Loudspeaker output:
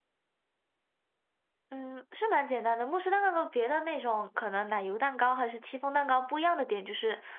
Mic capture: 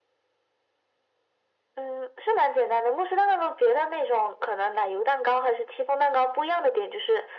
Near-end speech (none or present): none